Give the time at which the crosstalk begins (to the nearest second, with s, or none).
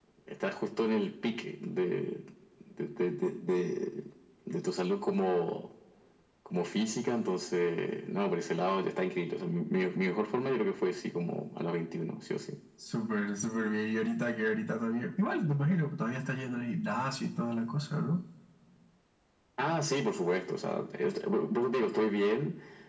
none